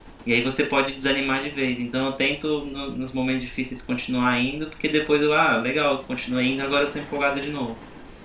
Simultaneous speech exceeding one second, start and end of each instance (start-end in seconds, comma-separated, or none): none